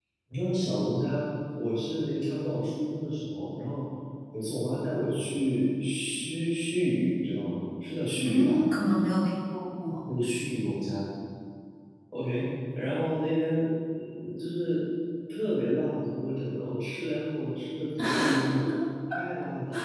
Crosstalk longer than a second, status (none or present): none